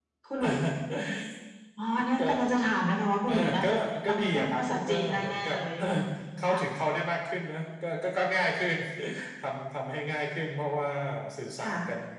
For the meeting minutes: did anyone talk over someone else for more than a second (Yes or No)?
Yes